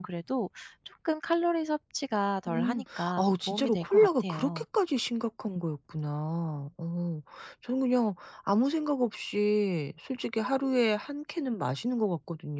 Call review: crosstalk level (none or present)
present